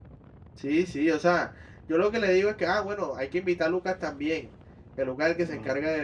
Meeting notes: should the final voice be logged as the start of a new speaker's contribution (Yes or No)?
No